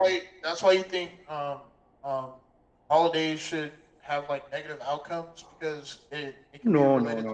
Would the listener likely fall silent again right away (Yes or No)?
No